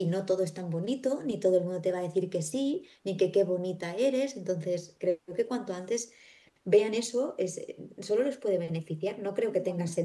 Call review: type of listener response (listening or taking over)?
listening